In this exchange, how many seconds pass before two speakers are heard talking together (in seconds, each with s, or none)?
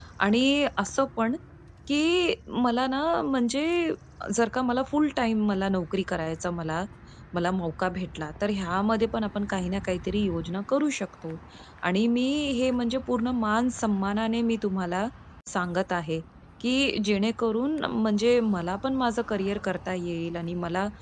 none